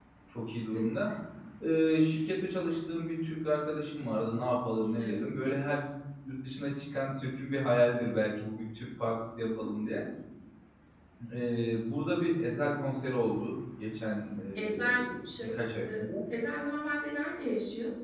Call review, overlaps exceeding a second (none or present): present